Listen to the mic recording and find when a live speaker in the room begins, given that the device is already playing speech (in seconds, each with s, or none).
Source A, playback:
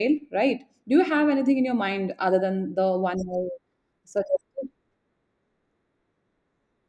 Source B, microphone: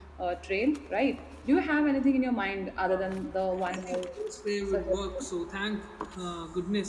2.9 s